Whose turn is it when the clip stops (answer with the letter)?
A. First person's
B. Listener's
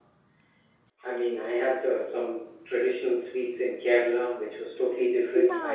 B